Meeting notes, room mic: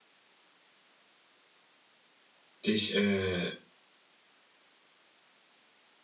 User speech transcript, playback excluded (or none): dich, äh,